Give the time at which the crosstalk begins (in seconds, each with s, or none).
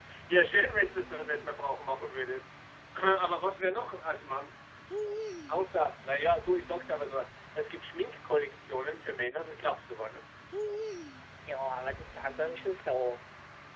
none